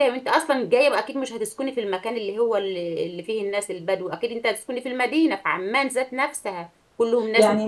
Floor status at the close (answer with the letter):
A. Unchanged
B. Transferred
A